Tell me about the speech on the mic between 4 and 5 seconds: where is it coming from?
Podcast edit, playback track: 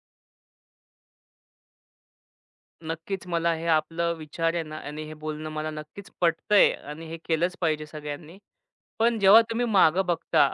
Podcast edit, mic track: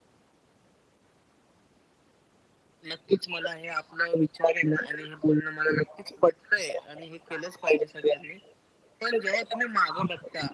echo only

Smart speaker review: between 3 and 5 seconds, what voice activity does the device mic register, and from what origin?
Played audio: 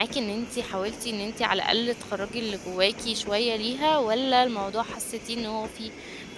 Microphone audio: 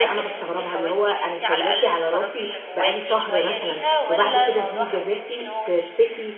both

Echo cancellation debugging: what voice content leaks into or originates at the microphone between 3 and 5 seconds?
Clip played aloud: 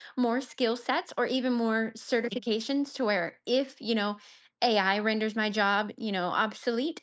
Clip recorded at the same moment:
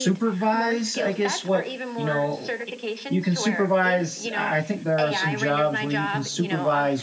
both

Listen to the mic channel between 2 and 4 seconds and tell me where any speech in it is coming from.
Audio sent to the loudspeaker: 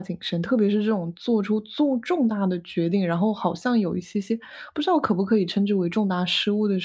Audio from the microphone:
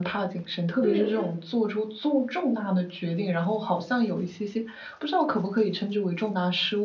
echo only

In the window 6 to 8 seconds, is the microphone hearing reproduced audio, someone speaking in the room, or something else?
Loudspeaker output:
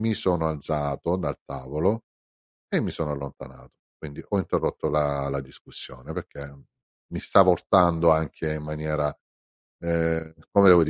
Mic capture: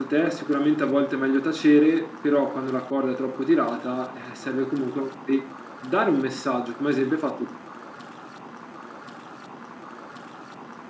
user only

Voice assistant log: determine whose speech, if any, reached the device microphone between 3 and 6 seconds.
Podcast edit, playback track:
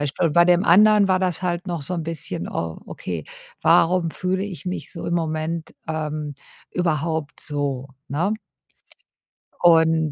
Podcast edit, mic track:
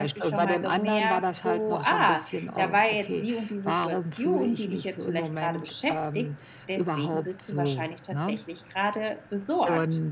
both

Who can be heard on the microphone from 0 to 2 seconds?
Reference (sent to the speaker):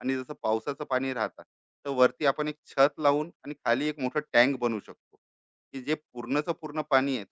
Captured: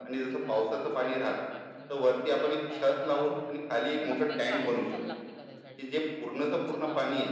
both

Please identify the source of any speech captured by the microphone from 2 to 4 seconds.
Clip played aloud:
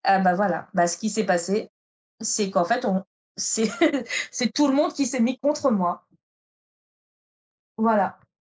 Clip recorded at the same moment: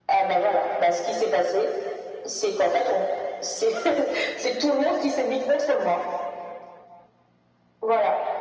echo only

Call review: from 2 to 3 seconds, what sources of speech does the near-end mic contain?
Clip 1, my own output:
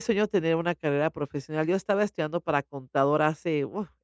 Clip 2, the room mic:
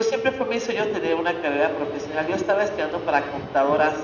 echo only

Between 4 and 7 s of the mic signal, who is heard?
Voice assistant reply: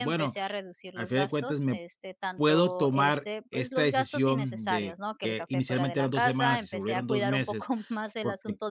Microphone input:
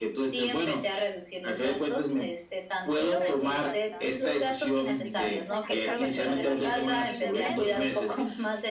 both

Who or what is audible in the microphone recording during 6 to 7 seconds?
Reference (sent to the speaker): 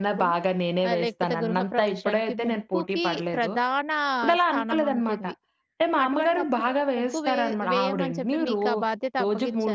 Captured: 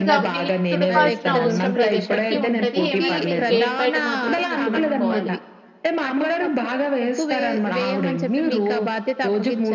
echo only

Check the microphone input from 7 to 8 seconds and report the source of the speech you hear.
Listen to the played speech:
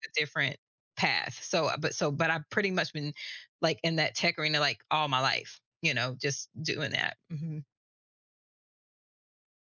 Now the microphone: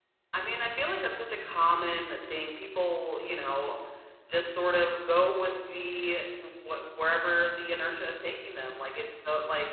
user only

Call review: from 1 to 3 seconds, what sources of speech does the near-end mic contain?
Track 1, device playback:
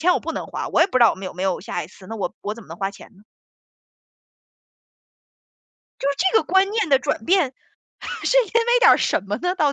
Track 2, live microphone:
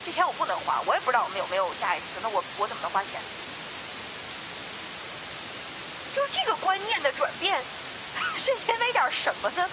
echo only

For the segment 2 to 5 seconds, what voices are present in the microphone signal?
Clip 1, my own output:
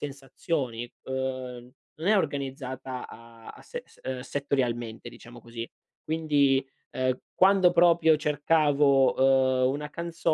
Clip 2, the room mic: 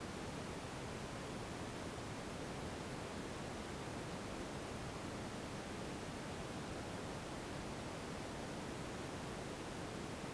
neither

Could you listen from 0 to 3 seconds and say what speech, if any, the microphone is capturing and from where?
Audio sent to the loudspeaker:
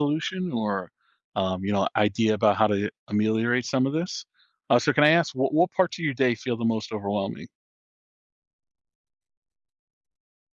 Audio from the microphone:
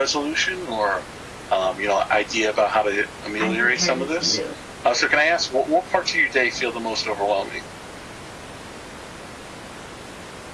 echo only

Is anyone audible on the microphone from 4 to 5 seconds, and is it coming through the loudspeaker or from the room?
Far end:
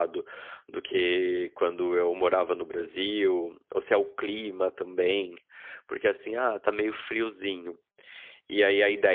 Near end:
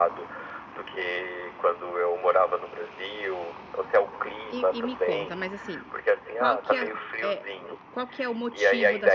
both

